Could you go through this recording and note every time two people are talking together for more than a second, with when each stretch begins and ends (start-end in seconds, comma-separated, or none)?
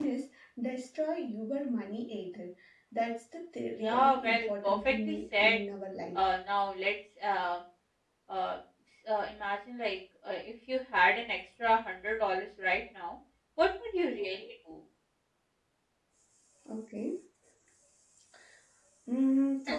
3.8-5.6